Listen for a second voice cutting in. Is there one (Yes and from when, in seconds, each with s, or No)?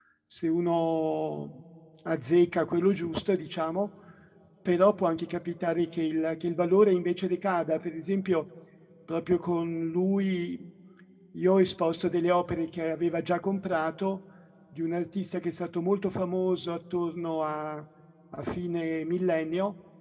No